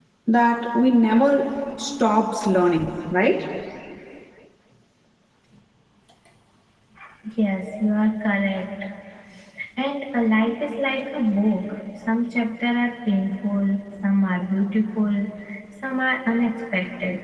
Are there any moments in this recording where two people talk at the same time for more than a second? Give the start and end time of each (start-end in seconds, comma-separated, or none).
none